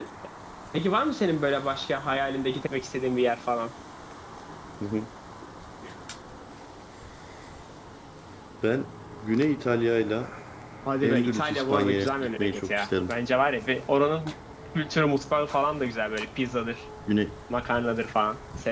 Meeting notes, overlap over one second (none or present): present